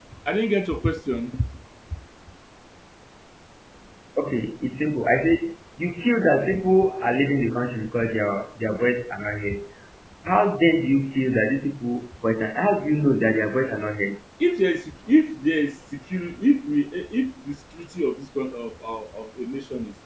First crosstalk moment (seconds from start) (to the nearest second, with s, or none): none